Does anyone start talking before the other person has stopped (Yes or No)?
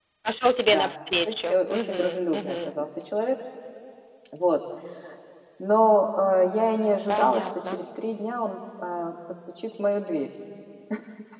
Yes